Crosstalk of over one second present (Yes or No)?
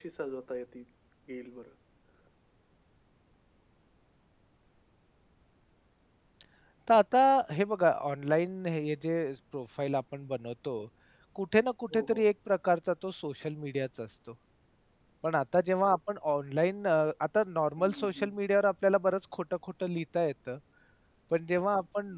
No